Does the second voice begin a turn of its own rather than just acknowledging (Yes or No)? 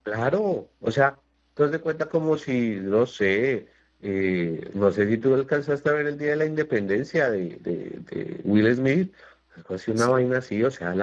No